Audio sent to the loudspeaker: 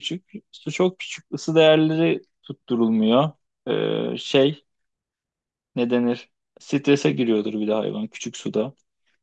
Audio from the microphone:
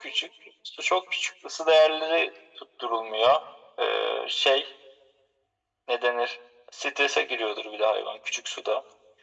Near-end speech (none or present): none